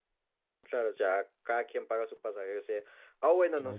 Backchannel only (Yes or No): Yes